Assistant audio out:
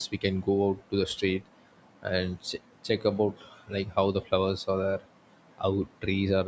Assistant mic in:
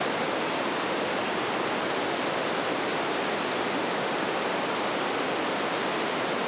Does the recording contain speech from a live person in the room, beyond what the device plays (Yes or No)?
No